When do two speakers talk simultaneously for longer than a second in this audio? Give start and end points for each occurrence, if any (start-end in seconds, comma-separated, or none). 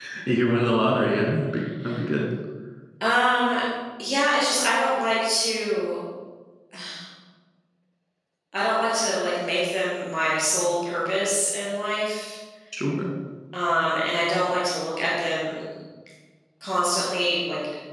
none